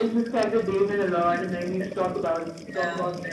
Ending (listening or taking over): taking over